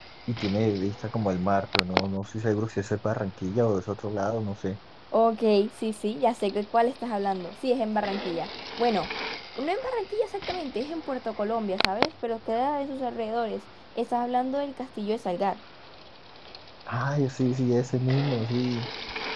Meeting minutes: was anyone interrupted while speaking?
No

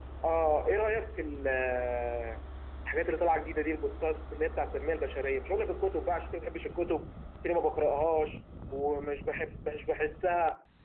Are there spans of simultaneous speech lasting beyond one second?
No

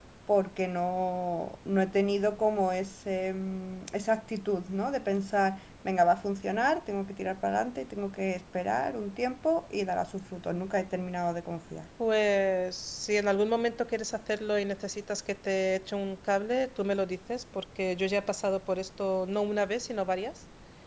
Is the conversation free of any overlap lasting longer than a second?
Yes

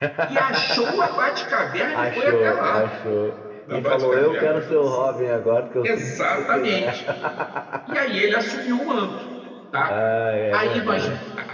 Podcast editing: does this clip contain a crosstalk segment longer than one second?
Yes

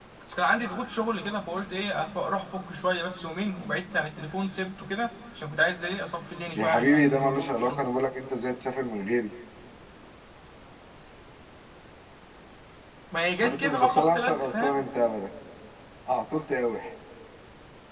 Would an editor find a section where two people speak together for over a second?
Yes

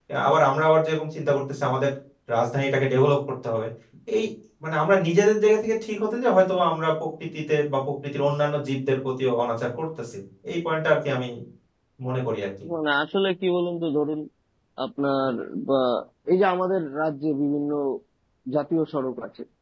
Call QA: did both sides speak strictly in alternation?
Yes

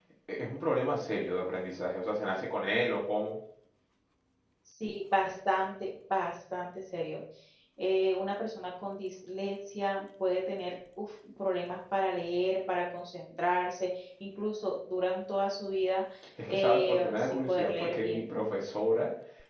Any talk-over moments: Yes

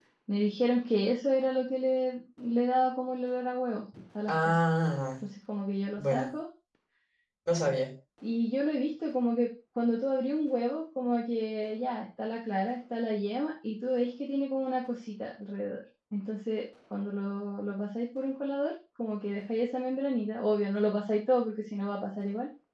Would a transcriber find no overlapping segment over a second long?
Yes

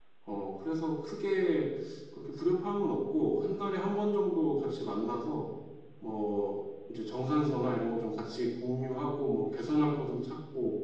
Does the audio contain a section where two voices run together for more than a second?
No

